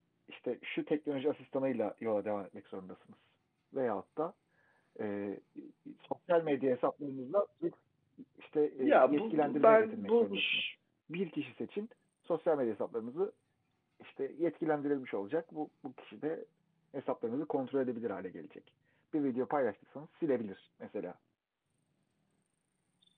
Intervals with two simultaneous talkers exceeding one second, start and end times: 8.8-10.7

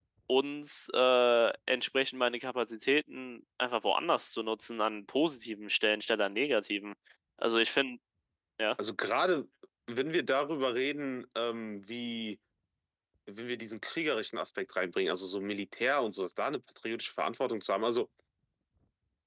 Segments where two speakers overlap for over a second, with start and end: none

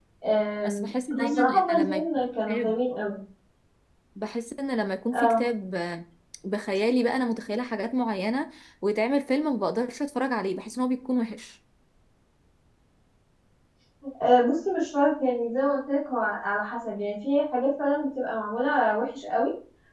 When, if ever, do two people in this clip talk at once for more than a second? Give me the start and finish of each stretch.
0.6-2.7

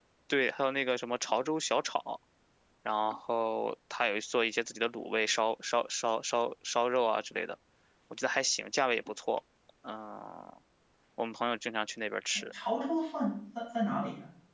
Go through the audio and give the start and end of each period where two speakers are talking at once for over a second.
none

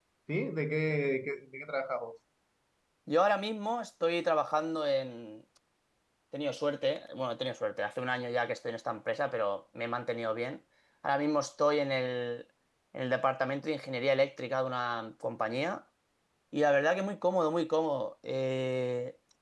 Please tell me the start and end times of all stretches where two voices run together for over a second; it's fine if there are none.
none

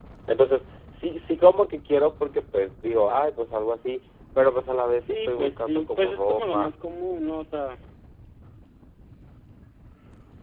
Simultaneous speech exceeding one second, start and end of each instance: 5.0-6.7

